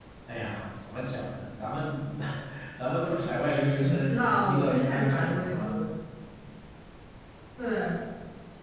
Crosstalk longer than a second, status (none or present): present